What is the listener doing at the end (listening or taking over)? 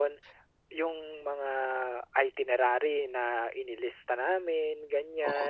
listening